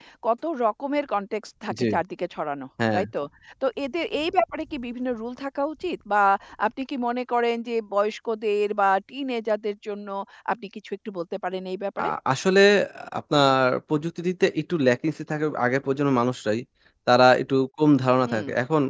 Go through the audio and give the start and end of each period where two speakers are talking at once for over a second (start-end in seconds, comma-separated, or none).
none